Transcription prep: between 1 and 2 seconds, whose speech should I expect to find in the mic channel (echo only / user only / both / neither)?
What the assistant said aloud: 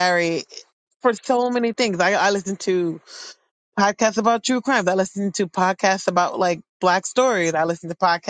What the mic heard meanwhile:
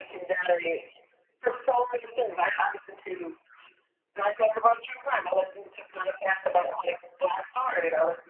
echo only